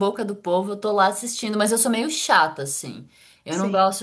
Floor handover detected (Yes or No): No